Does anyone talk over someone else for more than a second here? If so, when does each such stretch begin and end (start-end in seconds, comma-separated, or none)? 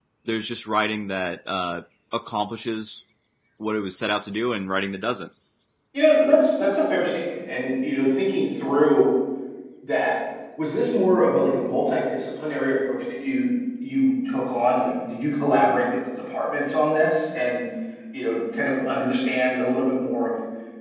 none